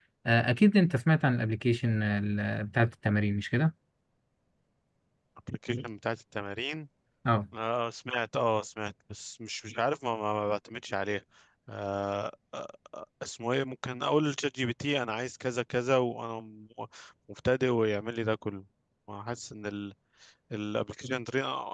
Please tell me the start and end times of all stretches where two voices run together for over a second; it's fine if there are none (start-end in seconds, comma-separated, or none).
none